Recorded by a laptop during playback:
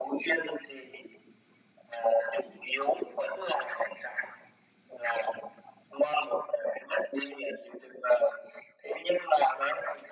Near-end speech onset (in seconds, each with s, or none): none